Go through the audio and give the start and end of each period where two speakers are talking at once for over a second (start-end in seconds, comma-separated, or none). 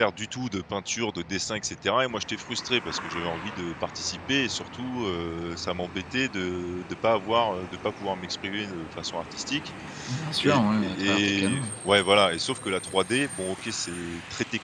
10.4-11.7